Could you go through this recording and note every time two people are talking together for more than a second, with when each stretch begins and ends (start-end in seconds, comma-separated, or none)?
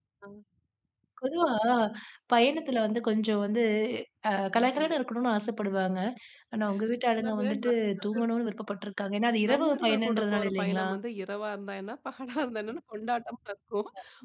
9.3-10.9